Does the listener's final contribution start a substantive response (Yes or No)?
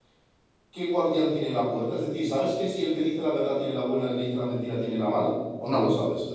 Yes